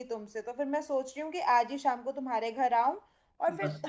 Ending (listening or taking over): listening